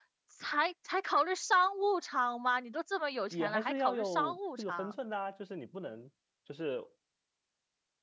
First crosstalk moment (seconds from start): 3.3 s

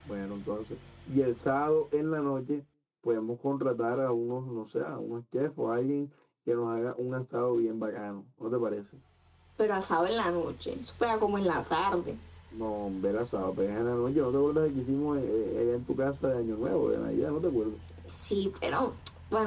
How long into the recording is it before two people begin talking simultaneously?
none

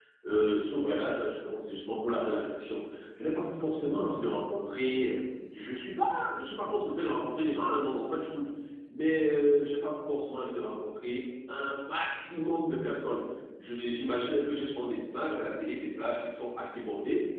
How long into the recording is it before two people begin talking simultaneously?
none

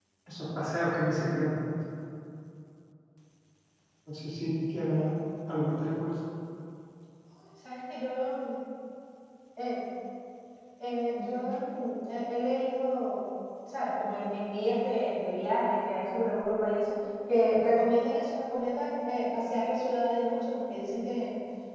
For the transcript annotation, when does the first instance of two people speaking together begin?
none

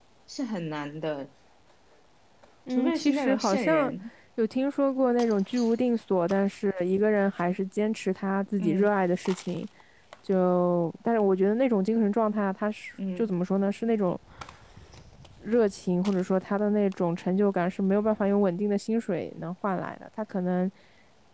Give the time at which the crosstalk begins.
2.7 s

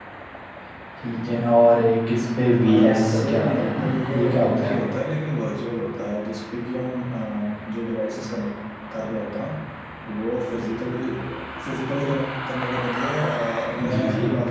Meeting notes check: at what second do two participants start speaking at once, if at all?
2.7 s

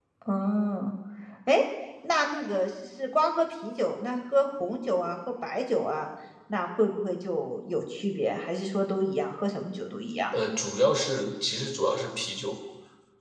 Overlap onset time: none

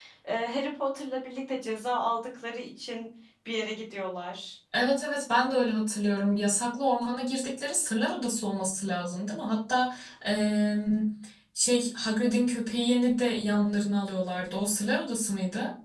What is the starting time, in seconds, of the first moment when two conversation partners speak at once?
none

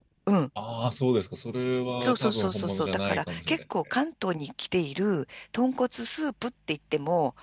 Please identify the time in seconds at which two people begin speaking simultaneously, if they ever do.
2.0 s

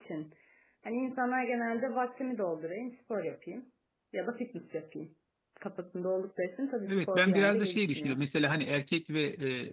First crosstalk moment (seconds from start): 6.8 s

